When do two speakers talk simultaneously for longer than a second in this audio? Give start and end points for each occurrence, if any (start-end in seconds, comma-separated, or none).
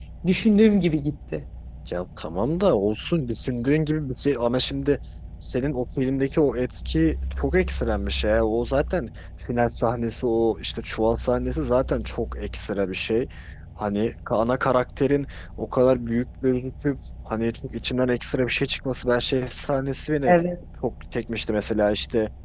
none